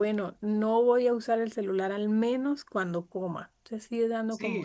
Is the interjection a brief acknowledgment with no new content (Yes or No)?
No